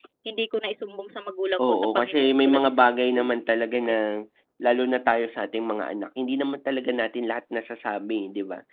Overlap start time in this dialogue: 1.6 s

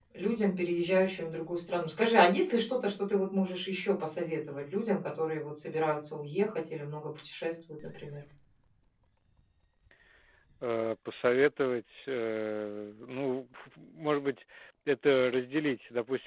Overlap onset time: none

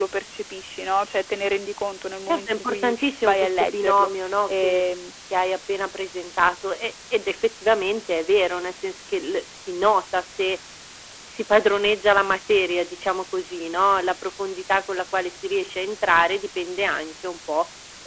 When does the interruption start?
2.3 s

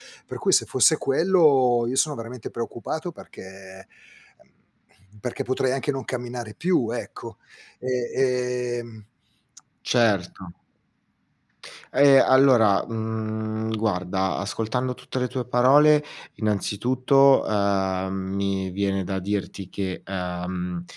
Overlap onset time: none

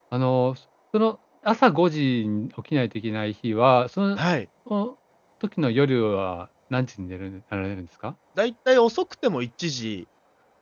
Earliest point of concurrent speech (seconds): none

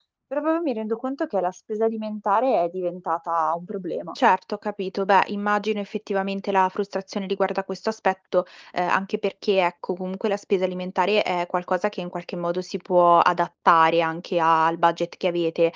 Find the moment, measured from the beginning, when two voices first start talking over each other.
none

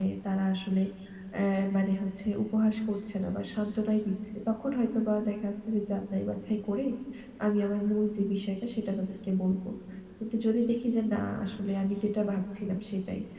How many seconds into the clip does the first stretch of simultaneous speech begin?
none

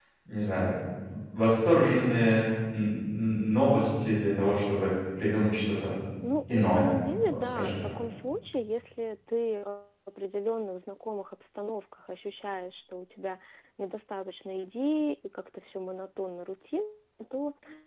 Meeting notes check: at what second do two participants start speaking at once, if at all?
6.5 s

